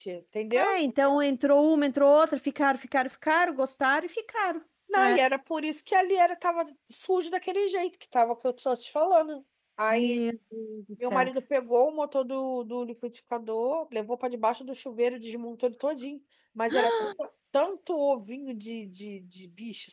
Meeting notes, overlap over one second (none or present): none